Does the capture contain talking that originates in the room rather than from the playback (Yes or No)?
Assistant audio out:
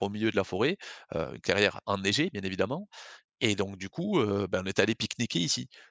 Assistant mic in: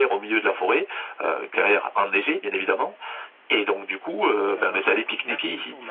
Yes